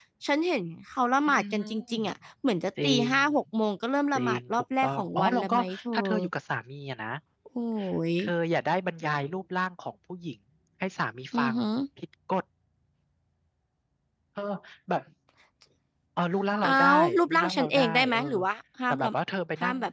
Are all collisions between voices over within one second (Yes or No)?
No